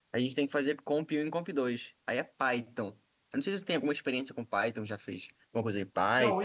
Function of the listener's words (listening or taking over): taking over